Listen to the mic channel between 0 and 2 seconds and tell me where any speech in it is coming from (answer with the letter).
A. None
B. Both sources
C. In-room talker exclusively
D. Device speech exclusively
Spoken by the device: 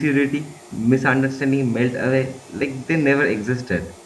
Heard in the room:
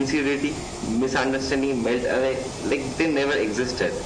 D